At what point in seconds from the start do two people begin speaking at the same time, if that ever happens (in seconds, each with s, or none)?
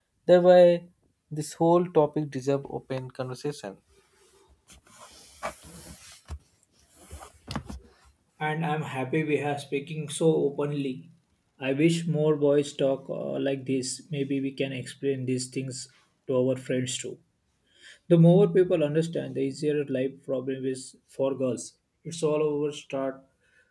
none